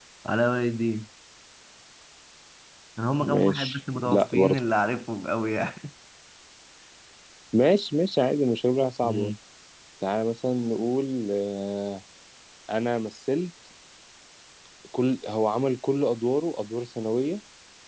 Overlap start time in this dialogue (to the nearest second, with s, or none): 3 s